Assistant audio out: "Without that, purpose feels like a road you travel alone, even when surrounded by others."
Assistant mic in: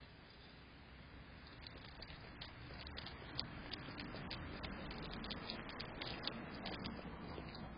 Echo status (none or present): none